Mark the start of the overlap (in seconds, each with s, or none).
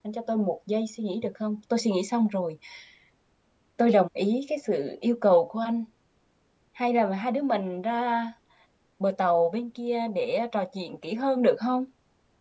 none